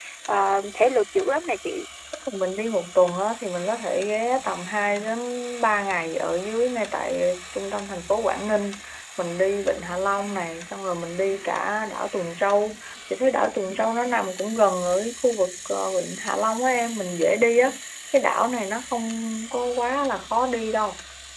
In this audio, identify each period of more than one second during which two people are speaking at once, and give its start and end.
none

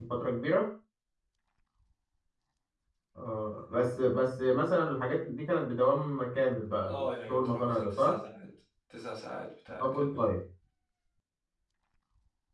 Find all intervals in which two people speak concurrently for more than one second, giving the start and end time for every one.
6.8-8.2

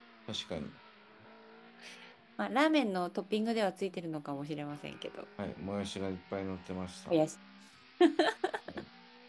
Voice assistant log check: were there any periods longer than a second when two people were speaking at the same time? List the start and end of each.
none

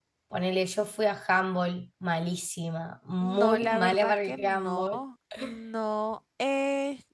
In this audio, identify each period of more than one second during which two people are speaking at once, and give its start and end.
3.2-5.0

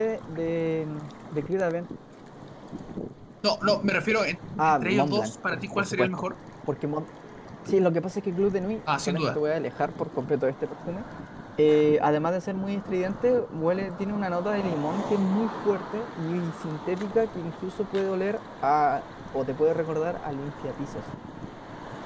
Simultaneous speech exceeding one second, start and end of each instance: 4.7-6.1

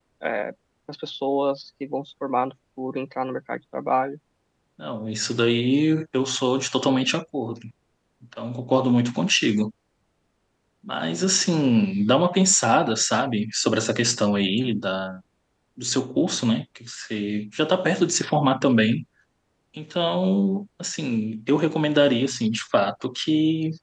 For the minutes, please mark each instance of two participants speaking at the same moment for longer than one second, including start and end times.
none

